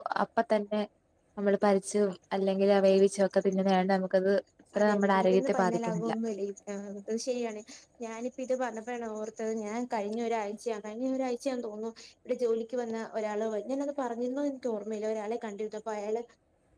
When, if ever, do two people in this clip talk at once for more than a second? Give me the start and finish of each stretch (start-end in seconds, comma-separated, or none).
4.8-6.1